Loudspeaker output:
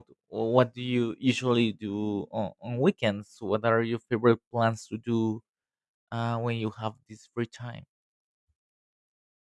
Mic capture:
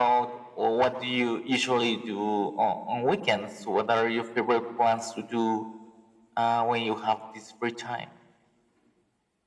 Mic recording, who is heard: echo only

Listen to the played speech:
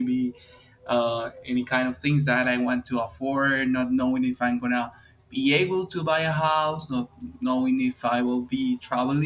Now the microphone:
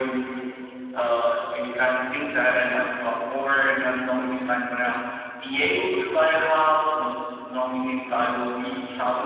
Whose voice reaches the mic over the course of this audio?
echo only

